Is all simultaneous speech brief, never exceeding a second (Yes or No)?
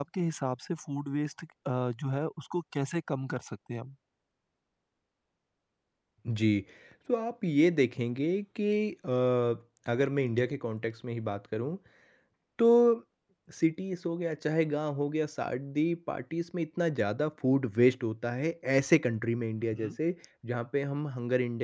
Yes